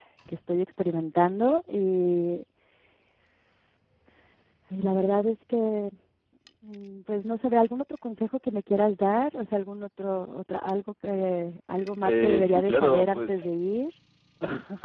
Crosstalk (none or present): present